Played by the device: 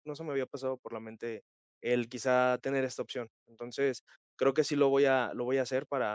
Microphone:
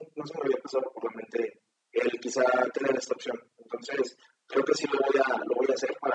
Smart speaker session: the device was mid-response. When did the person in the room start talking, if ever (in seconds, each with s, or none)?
none